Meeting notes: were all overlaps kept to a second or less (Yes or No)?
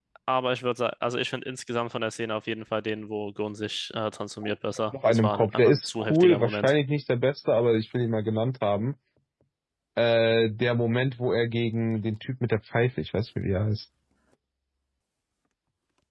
No